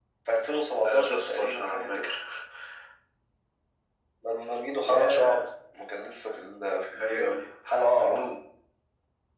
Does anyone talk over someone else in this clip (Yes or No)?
Yes